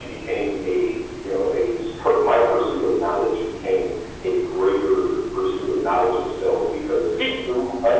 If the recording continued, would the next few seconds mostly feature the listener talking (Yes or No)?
No